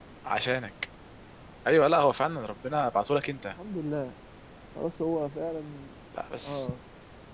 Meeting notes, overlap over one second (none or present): none